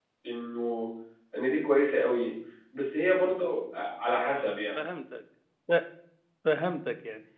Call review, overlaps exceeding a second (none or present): none